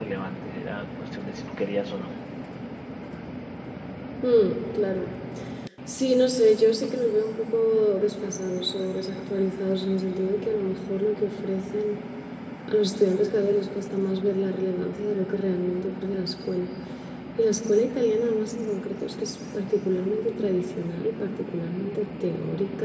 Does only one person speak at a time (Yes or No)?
Yes